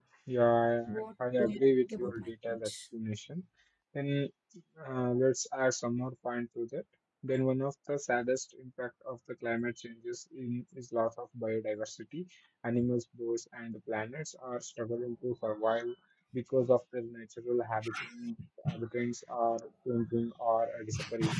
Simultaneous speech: Yes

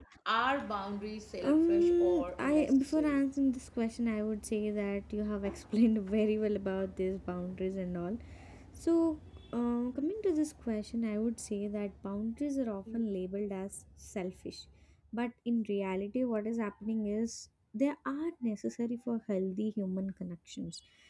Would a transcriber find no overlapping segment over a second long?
No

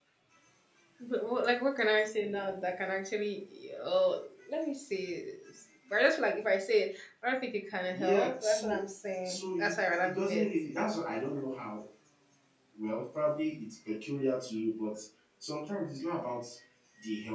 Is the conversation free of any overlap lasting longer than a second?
No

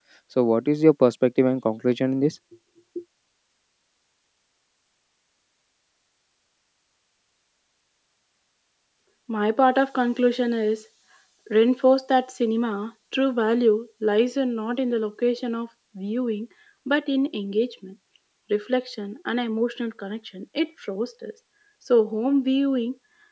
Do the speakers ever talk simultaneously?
No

